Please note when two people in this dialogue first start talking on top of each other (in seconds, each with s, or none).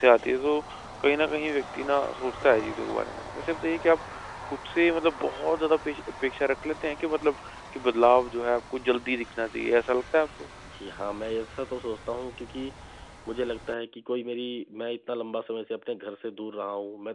none